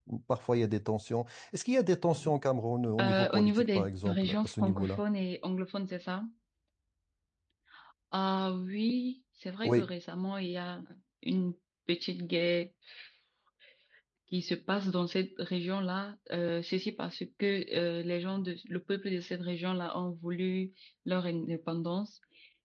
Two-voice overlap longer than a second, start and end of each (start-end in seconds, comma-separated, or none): 3.0-5.0